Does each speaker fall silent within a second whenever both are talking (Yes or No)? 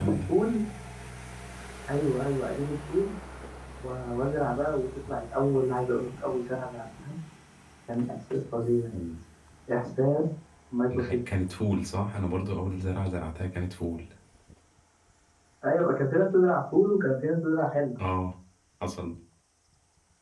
Yes